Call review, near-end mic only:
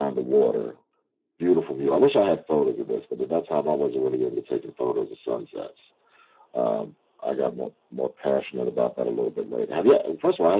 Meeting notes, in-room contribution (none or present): none